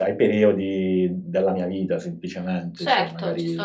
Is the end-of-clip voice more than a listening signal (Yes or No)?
Yes